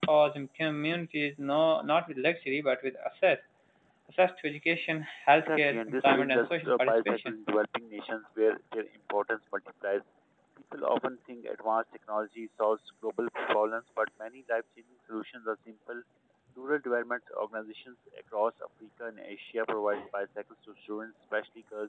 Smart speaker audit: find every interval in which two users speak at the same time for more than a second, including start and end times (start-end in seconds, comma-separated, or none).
5.4-7.3